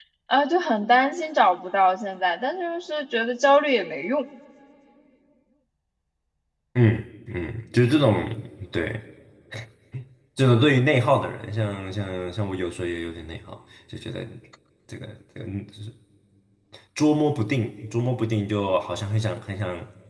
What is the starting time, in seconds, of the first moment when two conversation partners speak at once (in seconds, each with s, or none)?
none